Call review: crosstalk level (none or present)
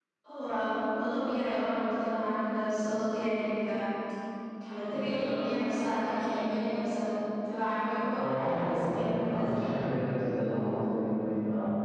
present